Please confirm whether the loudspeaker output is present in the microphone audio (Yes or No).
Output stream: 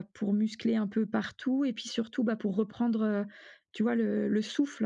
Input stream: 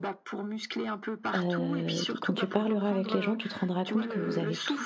Yes